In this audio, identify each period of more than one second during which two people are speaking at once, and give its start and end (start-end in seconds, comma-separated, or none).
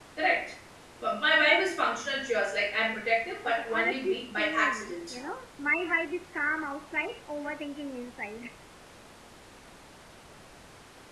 3.5-5.2